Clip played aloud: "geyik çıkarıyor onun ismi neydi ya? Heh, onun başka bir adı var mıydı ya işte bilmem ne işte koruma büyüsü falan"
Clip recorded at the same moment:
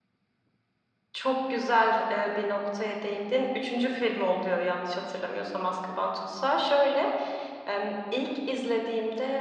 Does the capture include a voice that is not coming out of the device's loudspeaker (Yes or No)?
Yes